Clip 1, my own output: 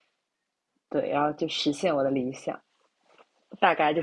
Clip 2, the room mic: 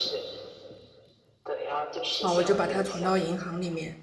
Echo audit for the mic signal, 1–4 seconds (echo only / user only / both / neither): both